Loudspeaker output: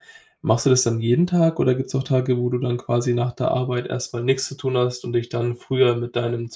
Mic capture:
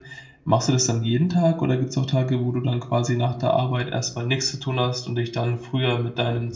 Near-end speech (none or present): none